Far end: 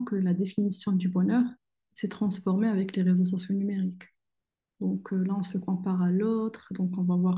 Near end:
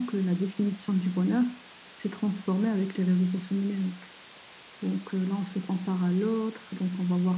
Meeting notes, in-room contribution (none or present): none